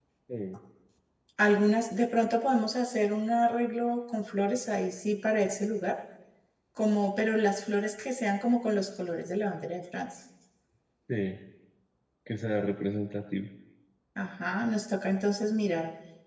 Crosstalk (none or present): none